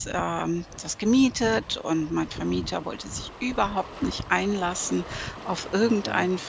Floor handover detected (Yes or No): No